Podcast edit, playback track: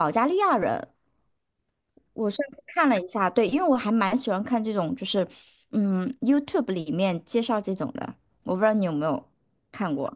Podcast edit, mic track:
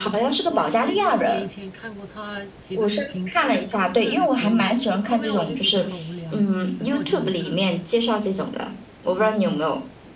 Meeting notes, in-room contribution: present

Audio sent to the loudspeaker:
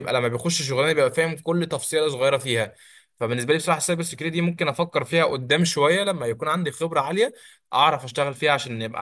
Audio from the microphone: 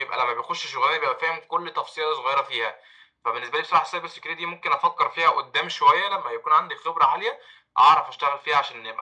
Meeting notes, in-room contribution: none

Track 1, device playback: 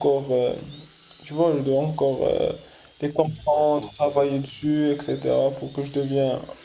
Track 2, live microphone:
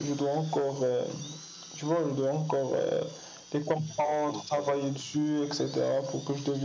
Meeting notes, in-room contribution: none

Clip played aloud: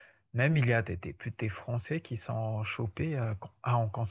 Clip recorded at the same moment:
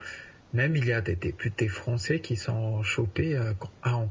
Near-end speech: none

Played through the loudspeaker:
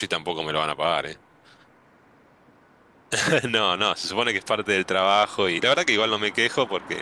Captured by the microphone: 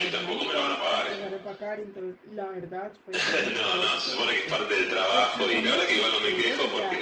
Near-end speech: present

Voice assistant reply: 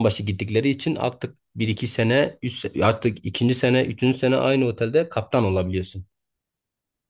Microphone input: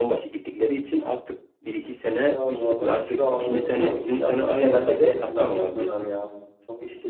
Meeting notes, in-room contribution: present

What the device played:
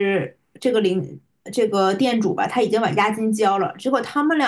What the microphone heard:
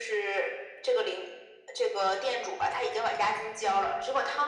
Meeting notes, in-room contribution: none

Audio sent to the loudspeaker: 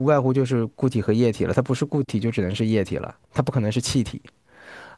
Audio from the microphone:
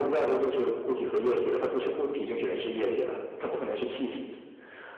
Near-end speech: none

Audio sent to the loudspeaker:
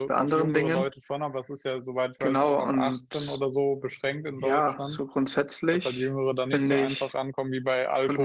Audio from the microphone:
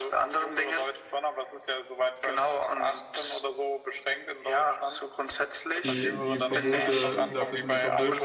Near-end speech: present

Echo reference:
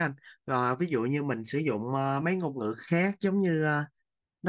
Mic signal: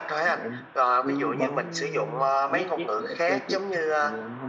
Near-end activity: present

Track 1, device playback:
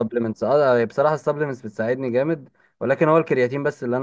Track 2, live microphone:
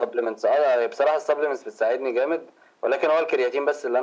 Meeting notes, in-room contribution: none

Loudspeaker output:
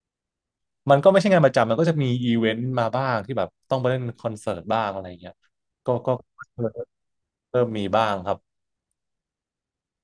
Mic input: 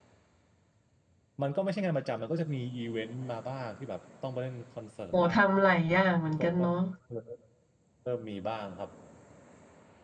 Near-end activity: present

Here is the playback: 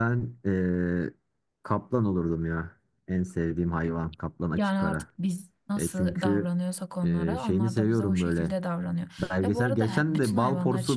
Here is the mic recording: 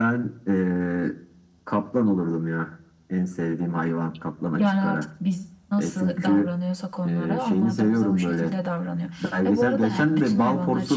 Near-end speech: none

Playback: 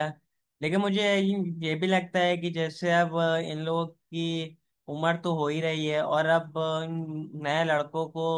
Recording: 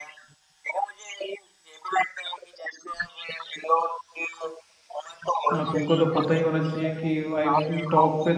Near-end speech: present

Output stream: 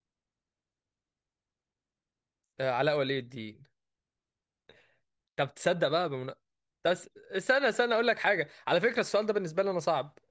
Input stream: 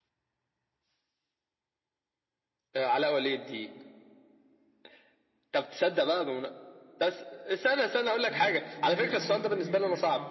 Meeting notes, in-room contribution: present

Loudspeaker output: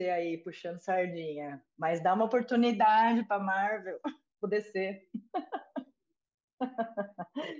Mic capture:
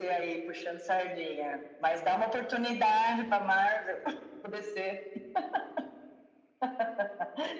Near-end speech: none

